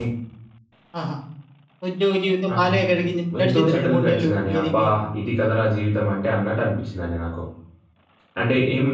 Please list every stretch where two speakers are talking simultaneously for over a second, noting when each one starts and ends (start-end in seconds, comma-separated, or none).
3.4-4.8